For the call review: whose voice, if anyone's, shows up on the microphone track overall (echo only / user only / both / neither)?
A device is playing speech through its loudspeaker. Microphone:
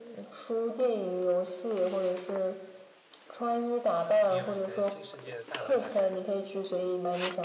both